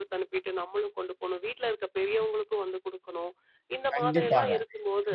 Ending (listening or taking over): taking over